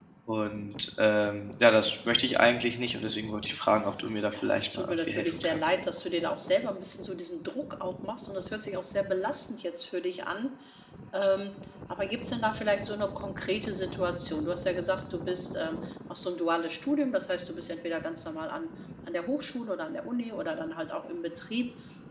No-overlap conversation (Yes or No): No